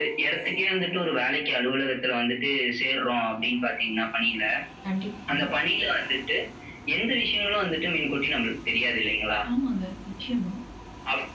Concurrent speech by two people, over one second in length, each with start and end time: none

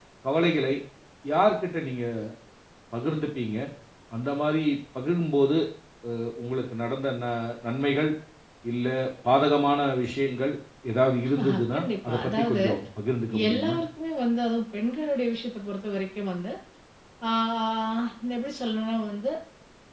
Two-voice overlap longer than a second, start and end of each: 11.4-12.6

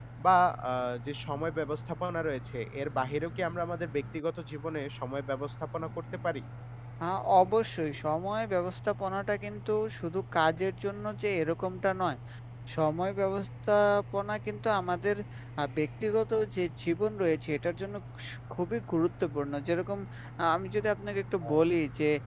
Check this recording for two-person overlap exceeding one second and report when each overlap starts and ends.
none

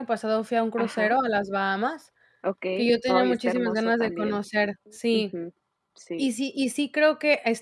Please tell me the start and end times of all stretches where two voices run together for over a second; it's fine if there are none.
2.8-4.4

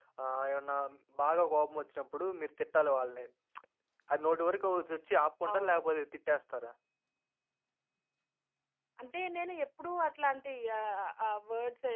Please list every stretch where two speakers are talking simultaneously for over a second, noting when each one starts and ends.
none

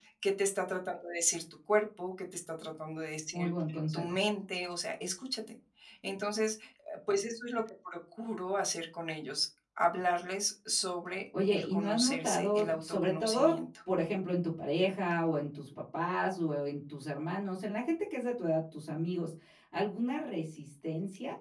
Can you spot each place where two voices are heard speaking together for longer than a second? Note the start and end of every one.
11.5-13.6

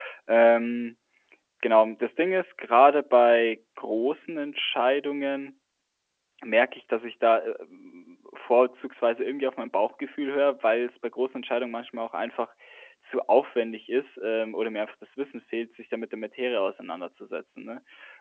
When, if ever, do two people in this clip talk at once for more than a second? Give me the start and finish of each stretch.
none

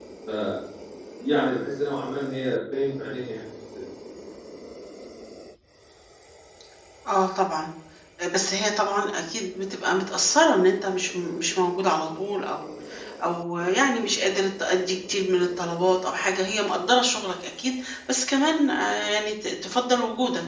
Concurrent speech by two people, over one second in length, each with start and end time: none

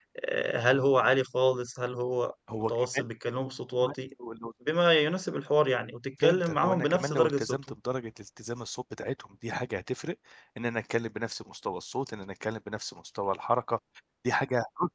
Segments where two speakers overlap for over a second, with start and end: 6.2-7.8

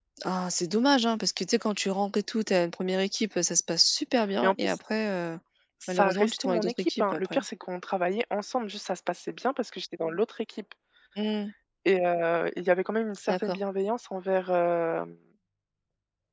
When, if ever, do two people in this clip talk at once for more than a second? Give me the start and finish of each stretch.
5.9-7.4

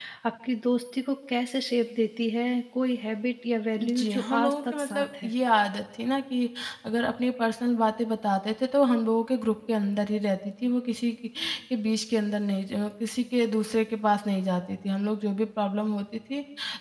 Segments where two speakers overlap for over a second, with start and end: 3.8-5.3

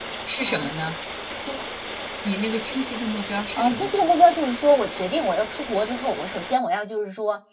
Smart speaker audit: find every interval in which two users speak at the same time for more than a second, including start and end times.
none

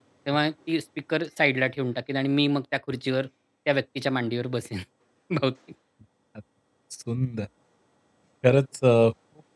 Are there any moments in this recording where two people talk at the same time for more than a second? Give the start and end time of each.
none

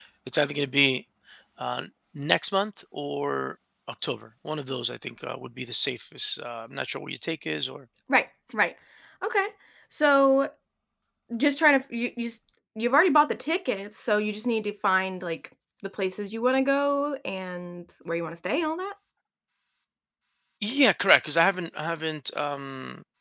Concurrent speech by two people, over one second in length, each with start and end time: none

